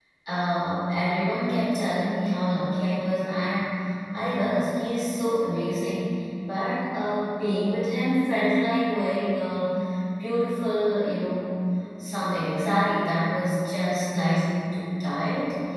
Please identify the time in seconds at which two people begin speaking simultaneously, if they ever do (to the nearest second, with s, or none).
none